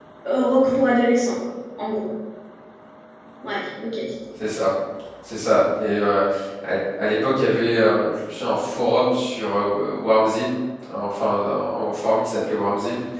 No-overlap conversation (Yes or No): Yes